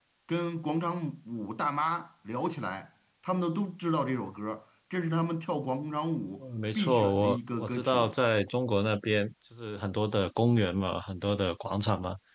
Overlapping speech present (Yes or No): Yes